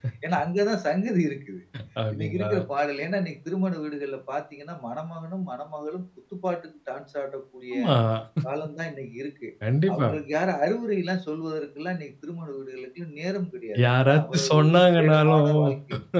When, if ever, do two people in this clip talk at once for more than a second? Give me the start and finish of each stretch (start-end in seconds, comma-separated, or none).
14.0-15.5